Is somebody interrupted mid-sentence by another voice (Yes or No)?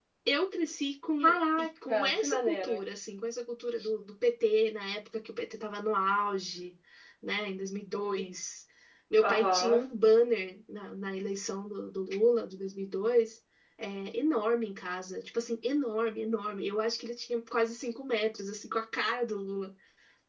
Yes